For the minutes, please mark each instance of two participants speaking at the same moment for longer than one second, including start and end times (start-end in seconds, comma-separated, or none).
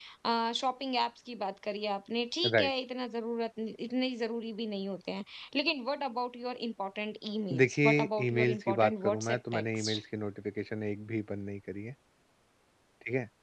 7.6-10.0